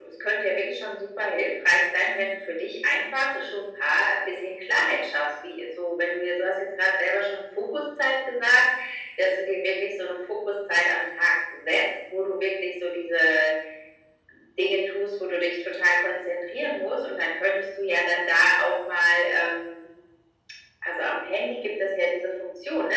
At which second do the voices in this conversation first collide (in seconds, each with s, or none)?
none